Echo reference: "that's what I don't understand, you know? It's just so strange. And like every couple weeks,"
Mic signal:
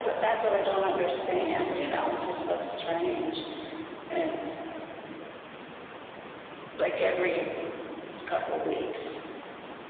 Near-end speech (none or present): none